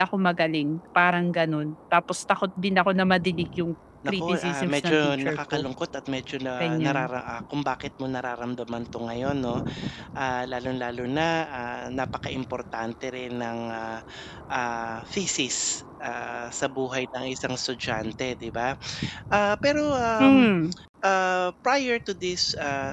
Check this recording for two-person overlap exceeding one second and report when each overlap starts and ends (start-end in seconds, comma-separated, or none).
4.1-5.6